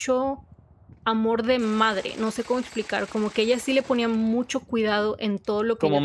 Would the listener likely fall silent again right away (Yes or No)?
Yes